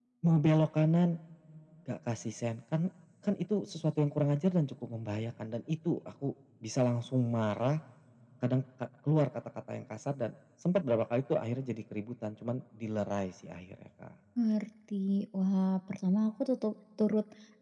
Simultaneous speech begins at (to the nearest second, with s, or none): none